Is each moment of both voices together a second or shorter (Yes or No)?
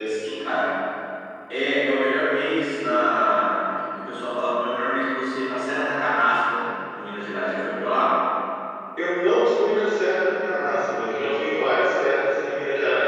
Yes